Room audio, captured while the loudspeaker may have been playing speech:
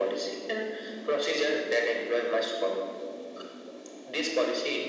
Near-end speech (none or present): none